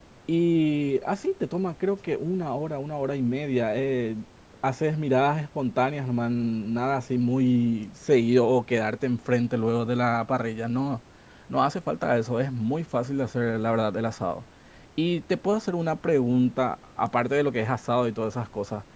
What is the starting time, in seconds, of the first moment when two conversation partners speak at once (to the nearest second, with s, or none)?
none